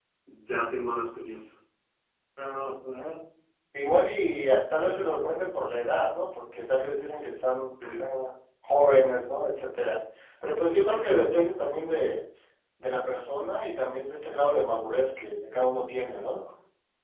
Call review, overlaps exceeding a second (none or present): none